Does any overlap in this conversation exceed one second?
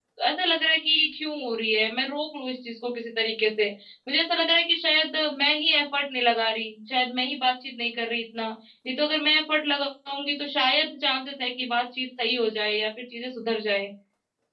No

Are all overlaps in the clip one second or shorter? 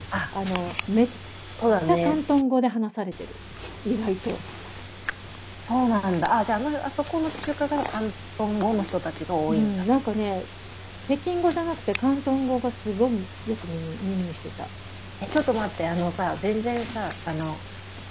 Yes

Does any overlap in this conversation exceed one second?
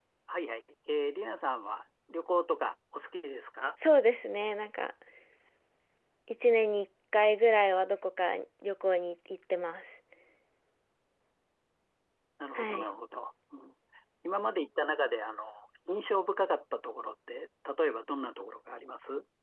No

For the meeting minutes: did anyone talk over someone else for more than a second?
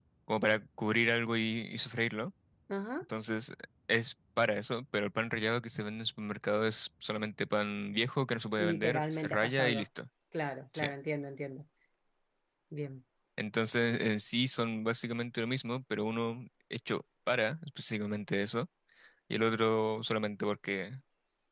Yes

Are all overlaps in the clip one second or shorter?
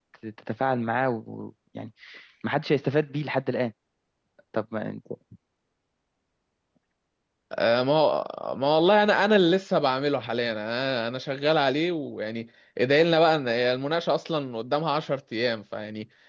Yes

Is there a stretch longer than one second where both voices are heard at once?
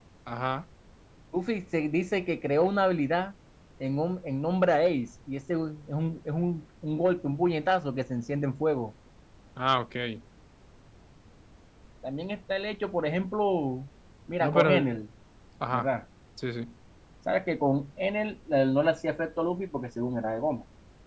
No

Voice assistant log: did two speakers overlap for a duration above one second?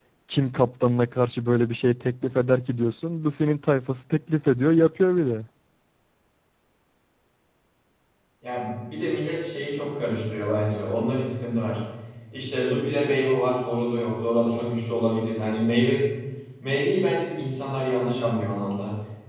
No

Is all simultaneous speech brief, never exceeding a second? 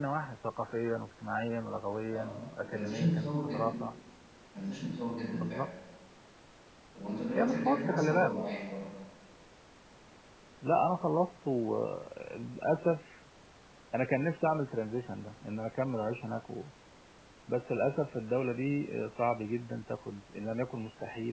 No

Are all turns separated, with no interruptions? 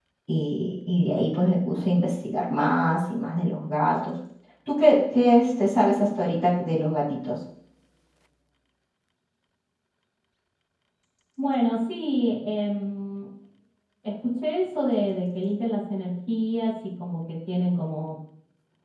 Yes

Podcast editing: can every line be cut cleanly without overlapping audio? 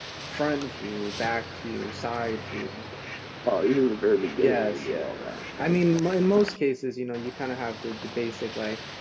No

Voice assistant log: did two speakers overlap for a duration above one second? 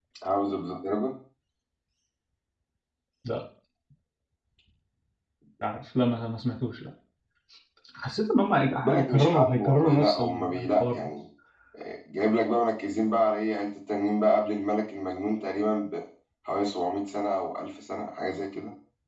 Yes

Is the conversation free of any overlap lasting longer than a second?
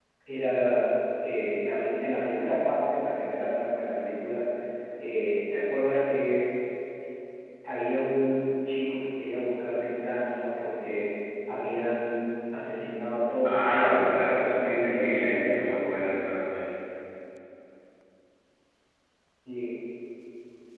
No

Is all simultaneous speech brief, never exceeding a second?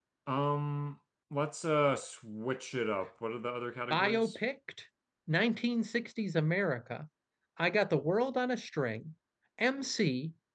Yes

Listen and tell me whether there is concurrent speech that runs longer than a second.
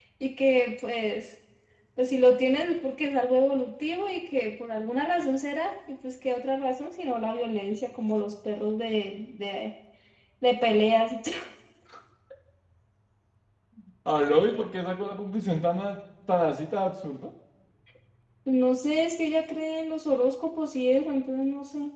No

